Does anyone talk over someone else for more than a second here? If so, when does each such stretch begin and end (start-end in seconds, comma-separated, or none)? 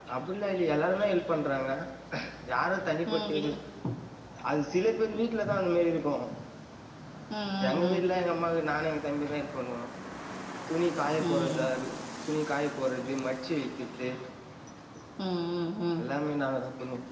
none